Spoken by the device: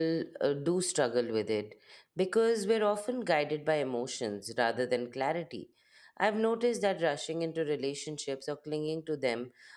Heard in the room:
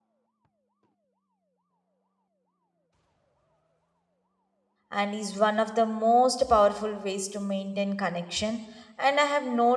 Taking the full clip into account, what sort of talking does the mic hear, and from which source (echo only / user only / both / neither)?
user only